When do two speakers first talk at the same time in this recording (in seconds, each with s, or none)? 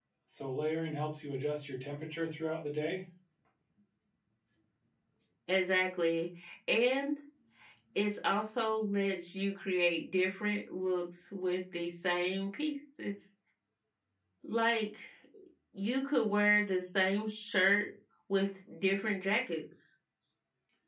none